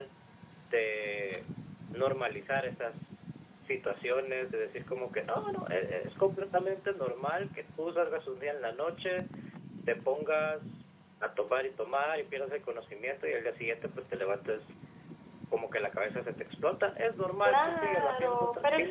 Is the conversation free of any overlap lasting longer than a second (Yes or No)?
No